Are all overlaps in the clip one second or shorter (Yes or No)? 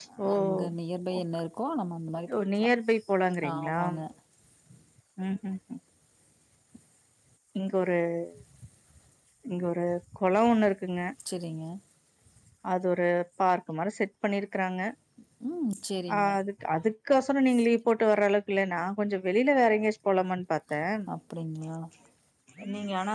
Yes